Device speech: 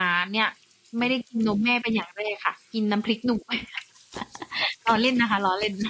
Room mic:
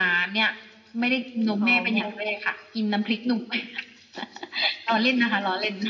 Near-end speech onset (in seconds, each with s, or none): 1.6 s